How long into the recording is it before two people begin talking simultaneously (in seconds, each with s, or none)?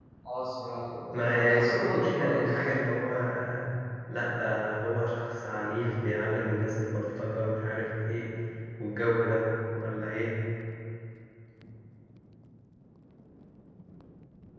1.1 s